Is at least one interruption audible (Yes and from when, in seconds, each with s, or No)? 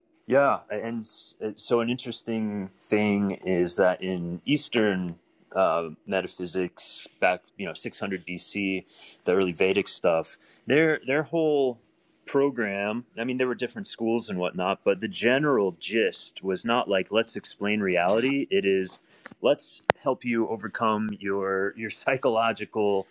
No